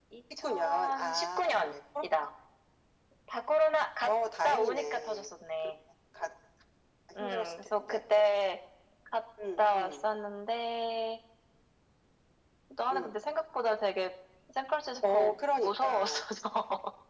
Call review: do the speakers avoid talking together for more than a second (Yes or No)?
No